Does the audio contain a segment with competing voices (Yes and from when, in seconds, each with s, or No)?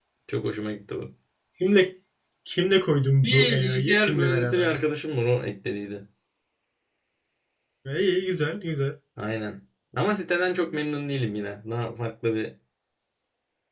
Yes, from 3.2 s